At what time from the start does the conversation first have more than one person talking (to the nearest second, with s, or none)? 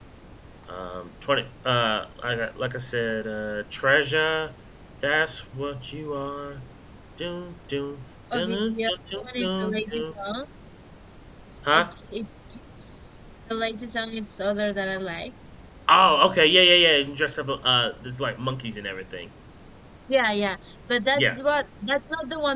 8 s